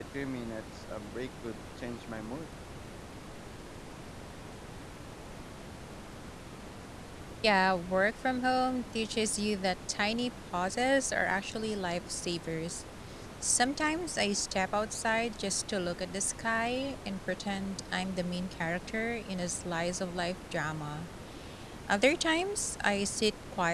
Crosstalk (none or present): none